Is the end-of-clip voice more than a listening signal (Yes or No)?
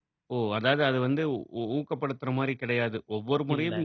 No